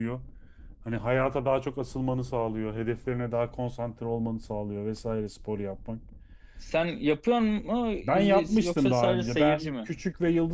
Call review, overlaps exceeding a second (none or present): present